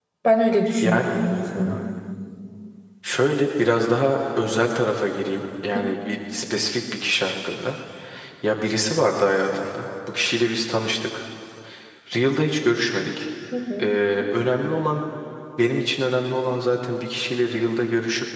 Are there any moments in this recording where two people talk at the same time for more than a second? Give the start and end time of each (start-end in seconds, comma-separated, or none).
none